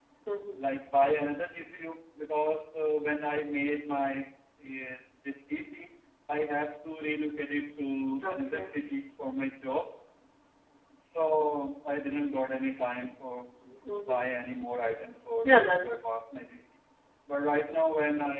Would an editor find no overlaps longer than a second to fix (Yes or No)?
Yes